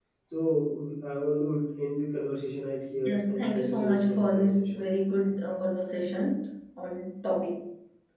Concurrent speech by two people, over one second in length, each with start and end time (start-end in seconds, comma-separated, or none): 3.0-4.9